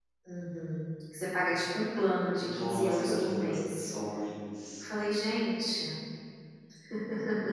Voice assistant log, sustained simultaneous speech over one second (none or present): present